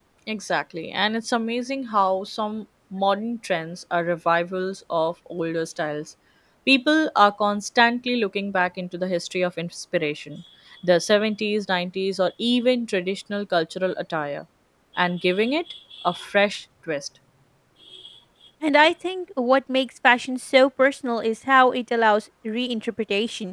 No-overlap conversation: Yes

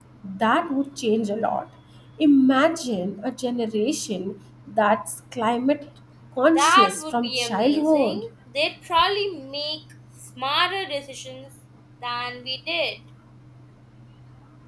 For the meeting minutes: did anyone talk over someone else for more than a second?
Yes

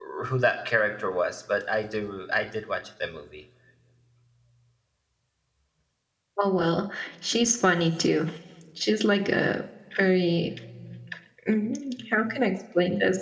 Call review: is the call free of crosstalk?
Yes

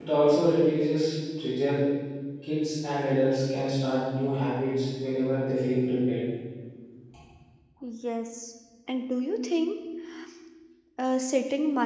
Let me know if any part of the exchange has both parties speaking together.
No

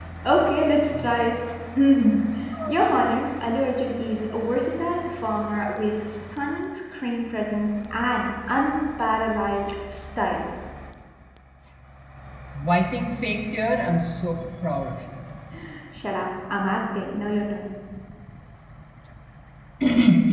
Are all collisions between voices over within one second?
Yes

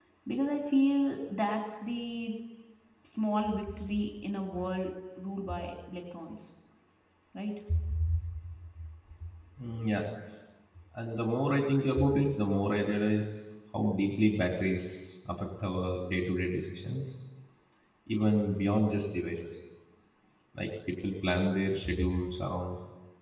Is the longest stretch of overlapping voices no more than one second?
Yes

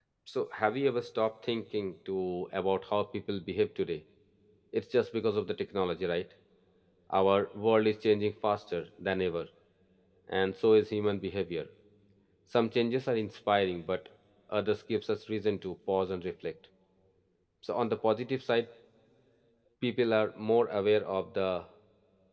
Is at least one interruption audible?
No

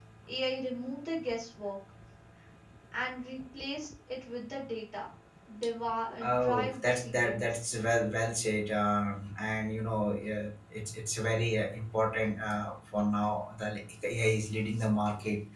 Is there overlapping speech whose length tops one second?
Yes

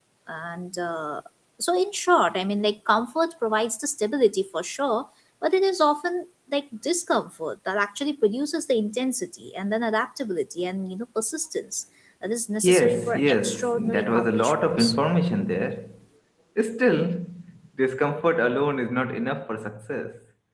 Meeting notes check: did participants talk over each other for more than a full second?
Yes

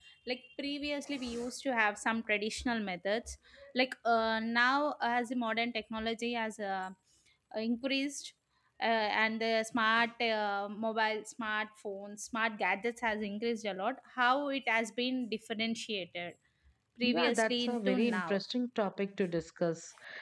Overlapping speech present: Yes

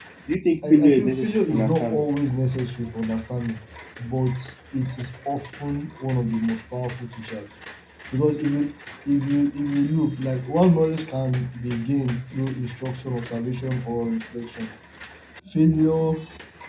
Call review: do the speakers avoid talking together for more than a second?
No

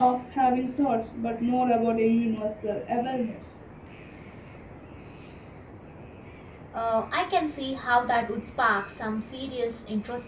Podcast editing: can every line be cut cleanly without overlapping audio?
Yes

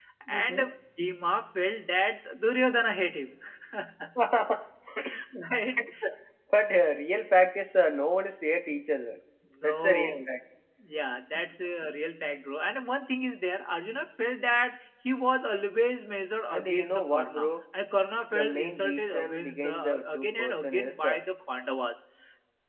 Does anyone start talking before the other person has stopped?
Yes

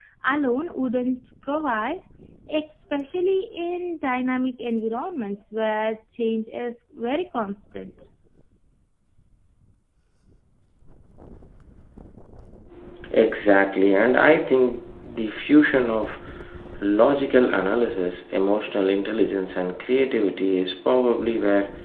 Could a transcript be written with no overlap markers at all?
Yes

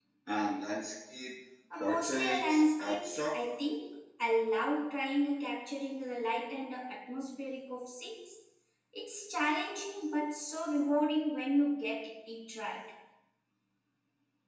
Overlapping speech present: Yes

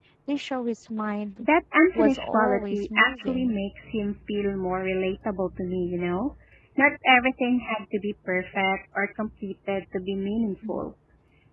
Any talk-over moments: Yes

